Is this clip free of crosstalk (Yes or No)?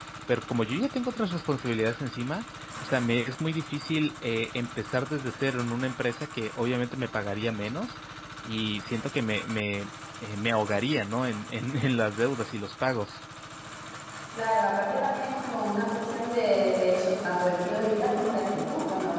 Yes